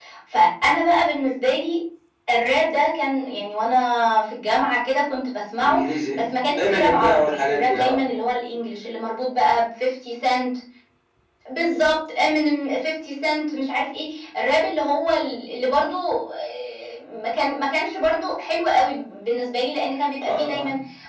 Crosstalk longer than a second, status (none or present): present